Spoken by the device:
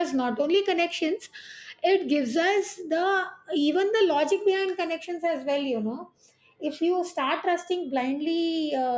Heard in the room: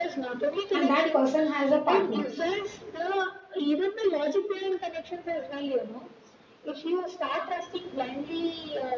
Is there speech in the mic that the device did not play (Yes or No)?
Yes